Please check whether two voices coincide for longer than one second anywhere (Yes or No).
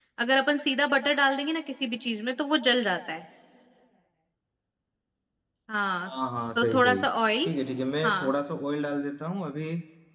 No